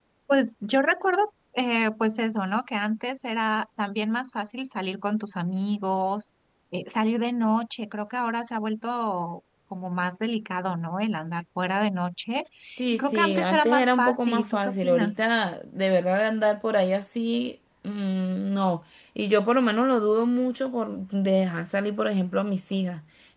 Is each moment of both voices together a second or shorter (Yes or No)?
No